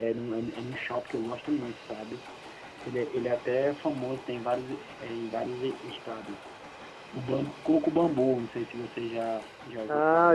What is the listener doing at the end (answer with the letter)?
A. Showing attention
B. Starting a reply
B